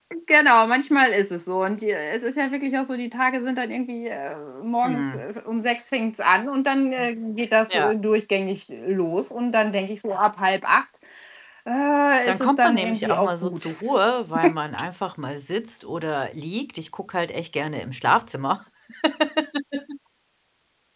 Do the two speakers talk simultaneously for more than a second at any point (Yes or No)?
Yes